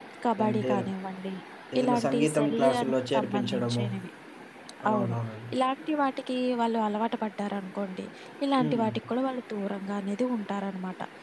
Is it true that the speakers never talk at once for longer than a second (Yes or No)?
No